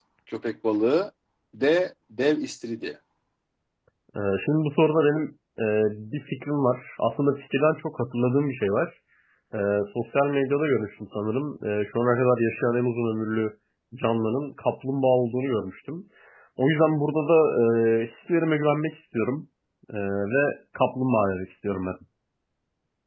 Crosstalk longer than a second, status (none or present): none